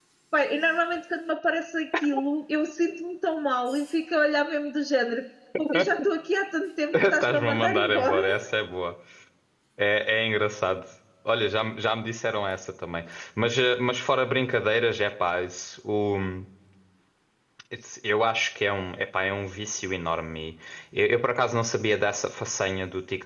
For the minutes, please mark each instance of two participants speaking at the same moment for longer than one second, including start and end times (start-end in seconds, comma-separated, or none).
6.9-8.2